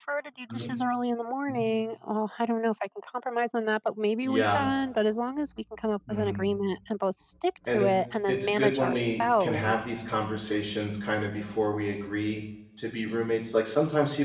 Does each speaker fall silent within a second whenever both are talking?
No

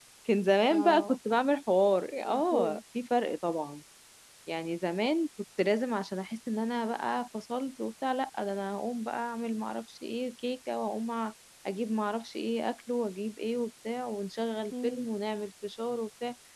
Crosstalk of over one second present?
No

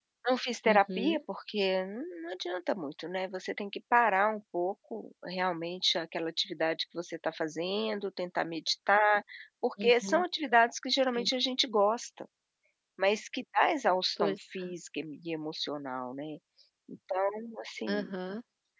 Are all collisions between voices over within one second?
Yes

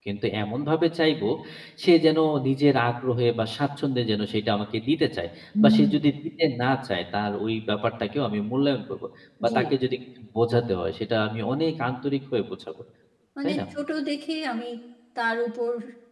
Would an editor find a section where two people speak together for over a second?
No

